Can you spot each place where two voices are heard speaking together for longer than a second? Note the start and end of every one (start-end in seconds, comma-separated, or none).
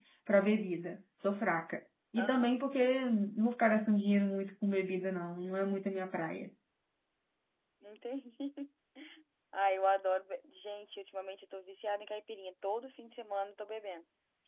none